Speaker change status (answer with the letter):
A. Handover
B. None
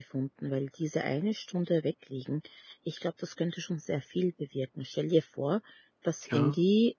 B